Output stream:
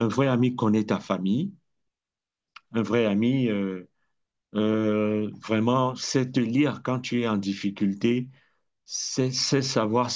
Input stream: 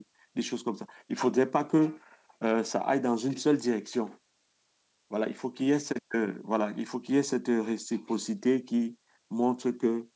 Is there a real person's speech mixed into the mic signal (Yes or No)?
Yes